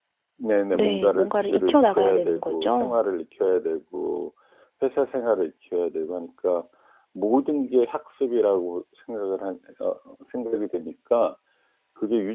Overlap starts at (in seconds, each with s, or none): 0.7 s